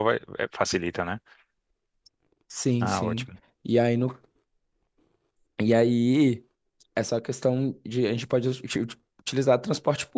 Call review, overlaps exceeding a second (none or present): none